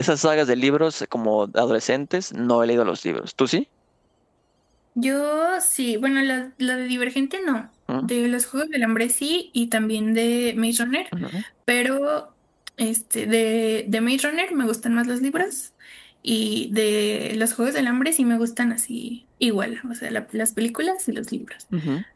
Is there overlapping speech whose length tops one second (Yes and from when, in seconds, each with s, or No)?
No